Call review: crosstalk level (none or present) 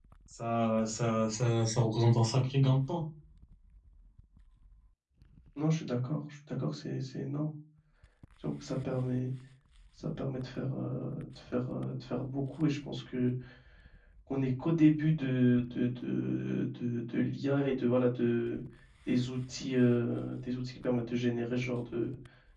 none